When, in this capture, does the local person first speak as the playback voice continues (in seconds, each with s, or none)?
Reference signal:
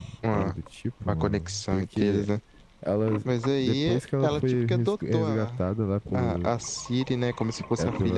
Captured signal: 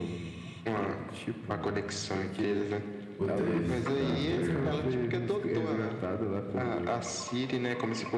3.2 s